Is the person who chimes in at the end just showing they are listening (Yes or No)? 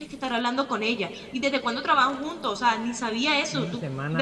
No